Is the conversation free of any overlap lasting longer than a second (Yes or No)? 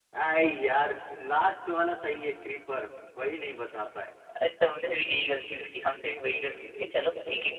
Yes